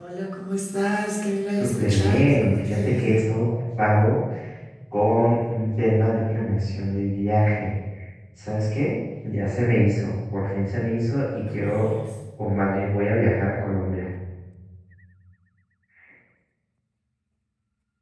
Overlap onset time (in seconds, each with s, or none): 1.5 s